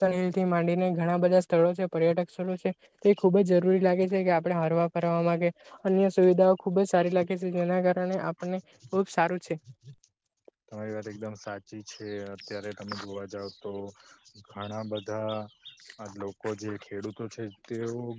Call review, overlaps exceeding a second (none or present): none